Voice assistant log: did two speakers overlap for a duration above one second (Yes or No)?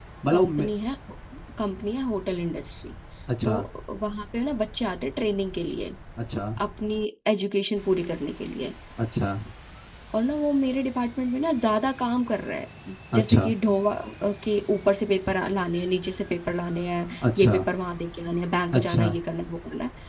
No